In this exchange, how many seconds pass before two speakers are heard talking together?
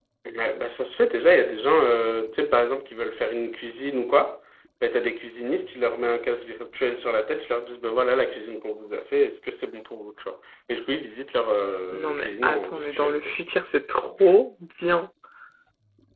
11.9 s

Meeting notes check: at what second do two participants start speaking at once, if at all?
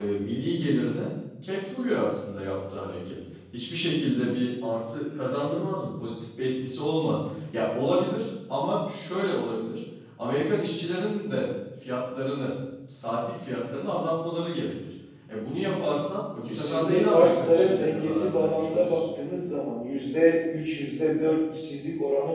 16.5 s

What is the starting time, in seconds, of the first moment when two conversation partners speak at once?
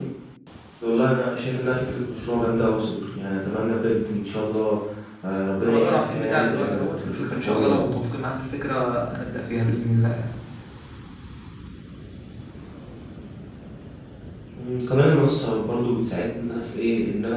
5.6 s

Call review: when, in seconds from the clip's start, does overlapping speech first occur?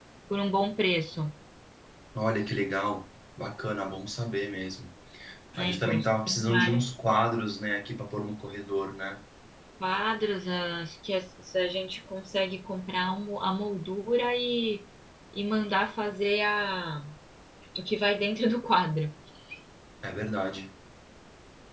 5.6 s

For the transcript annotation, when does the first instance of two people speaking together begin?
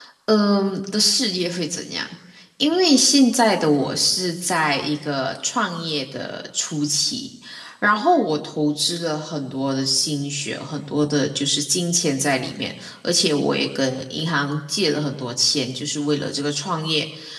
none

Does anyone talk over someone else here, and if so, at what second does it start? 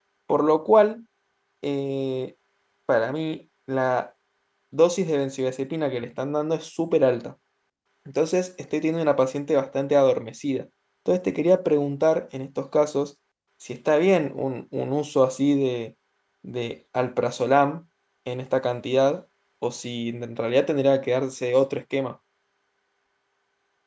none

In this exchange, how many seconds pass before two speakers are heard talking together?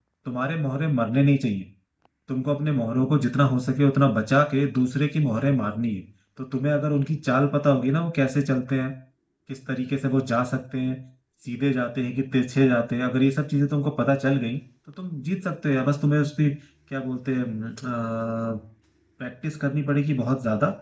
none

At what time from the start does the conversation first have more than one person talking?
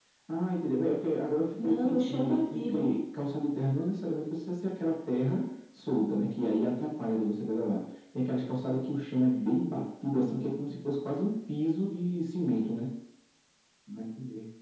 1.6 s

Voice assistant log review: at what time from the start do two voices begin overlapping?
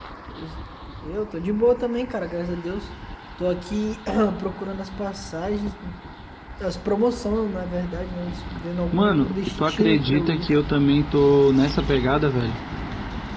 8.9 s

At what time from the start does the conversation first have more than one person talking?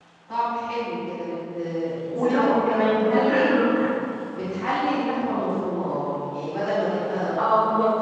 2.1 s

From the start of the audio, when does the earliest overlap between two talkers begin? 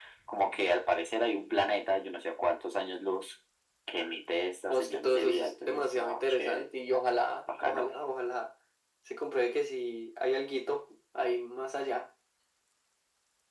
4.7 s

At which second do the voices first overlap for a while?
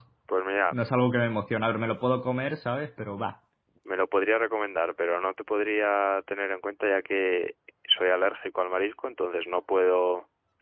none

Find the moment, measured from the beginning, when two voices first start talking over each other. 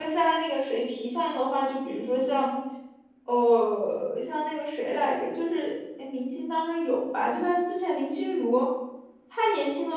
none

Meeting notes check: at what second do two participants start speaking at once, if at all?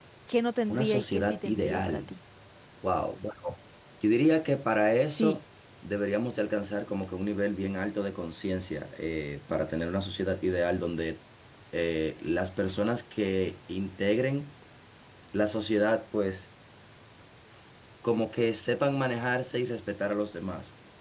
0.7 s

